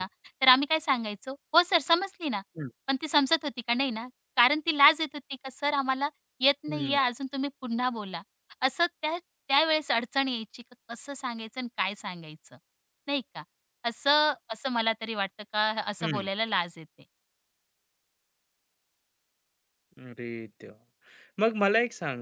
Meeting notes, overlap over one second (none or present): none